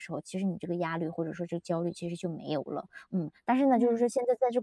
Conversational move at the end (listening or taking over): listening